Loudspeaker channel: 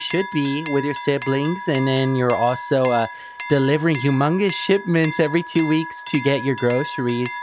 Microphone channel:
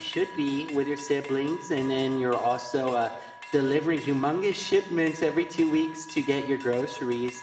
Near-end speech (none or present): none